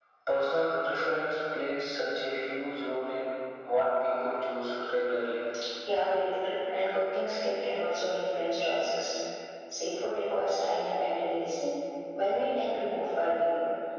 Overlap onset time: none

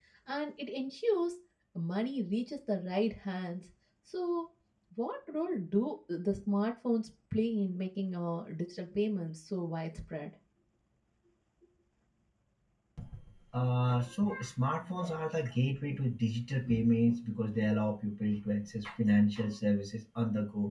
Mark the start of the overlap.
none

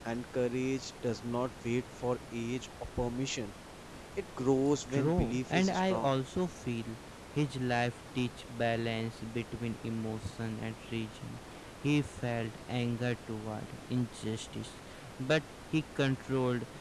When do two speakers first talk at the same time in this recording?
4.9 s

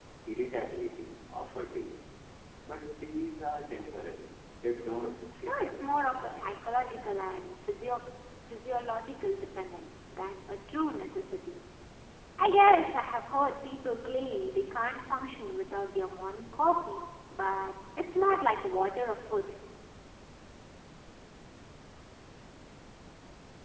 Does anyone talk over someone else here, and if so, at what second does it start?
4.8 s

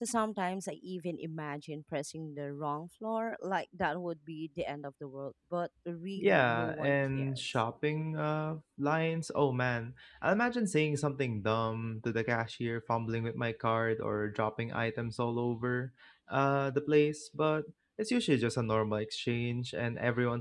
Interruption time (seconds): 6.2 s

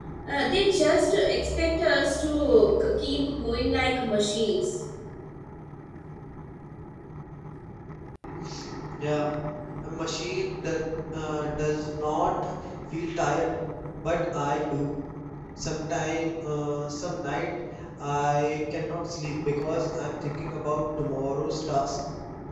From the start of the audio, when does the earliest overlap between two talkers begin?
none

